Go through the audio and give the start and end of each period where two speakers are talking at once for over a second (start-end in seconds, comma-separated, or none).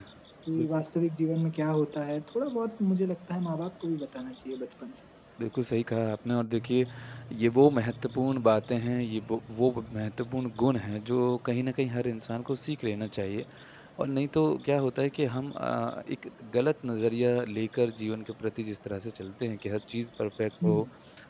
none